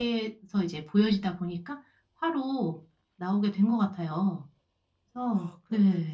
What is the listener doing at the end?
taking over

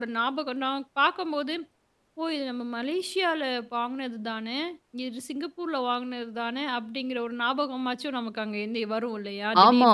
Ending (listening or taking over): taking over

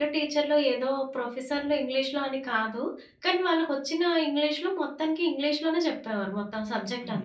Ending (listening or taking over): taking over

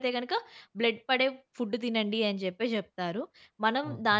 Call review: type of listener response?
listening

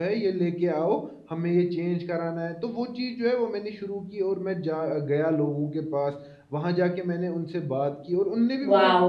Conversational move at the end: taking over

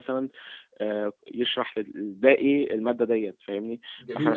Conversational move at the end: taking over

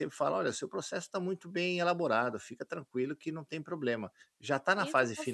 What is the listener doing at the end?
taking over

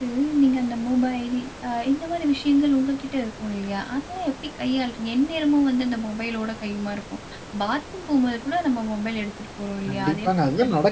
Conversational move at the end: taking over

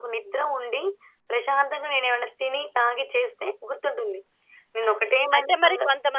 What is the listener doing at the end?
taking over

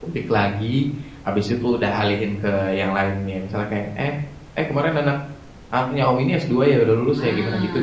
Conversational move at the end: taking over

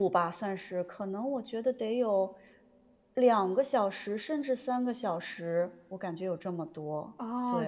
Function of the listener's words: taking over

